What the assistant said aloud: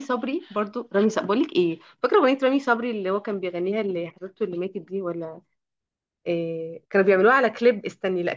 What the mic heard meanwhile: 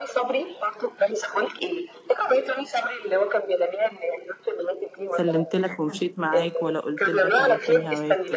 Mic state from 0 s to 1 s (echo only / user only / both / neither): echo only